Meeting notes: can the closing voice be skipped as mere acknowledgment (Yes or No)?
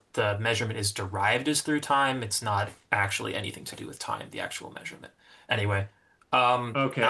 No